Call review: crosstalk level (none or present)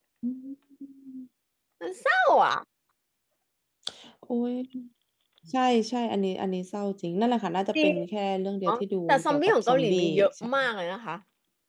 present